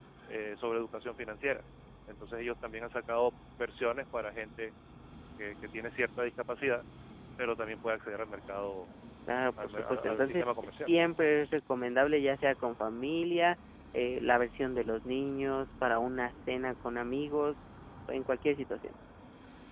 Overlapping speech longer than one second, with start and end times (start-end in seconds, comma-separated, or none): 9.6-10.9